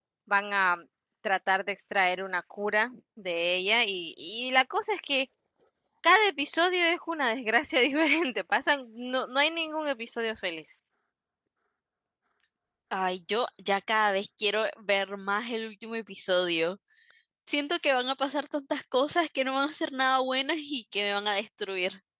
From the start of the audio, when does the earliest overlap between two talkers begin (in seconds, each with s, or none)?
none